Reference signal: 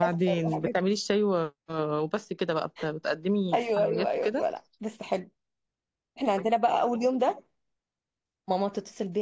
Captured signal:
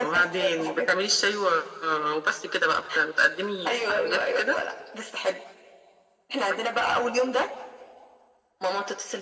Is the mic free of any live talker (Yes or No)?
Yes